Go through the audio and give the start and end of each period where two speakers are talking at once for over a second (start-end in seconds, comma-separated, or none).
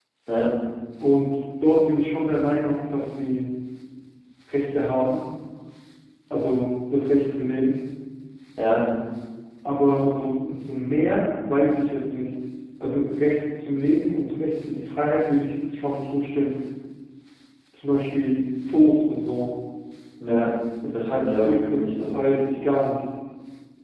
20.9-22.2